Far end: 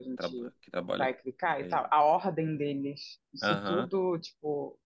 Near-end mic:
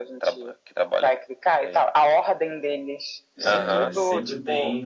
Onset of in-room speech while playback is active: 3.4 s

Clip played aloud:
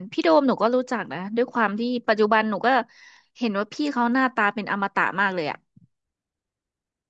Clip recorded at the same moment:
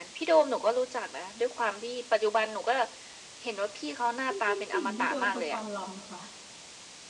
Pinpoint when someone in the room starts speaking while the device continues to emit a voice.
4.3 s

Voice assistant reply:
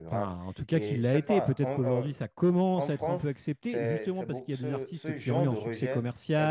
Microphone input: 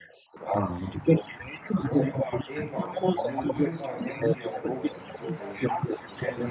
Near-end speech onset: 1.8 s

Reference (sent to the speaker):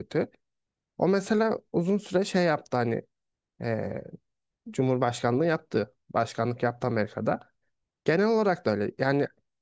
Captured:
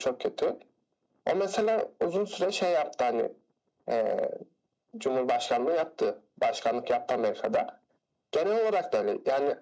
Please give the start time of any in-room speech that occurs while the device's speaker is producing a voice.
none

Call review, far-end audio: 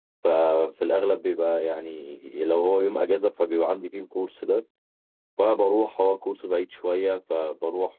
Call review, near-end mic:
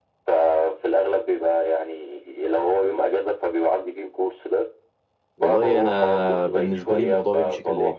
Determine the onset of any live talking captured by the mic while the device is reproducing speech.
5.4 s

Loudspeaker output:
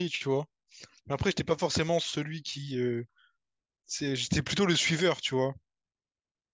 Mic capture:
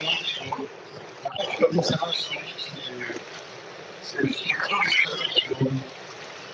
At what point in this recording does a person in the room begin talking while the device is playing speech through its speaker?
none

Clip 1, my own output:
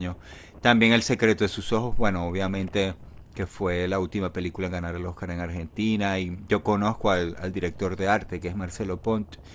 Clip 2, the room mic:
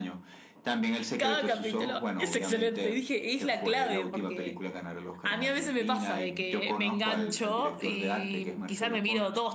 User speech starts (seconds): 1.2 s

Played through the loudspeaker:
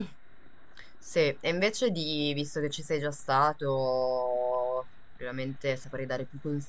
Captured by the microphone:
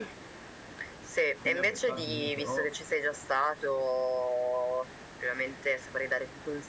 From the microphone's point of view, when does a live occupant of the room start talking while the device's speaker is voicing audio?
1.4 s

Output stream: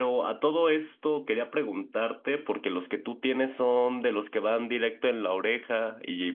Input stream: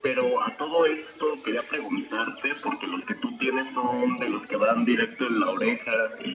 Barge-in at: none

